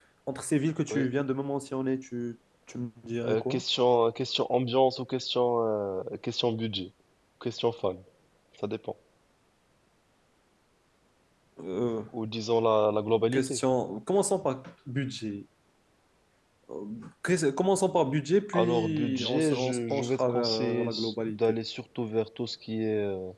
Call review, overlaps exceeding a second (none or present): present